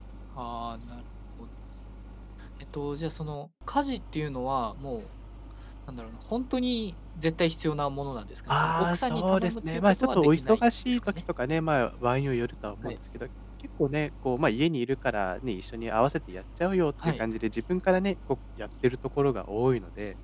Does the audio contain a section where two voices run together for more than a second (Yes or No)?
Yes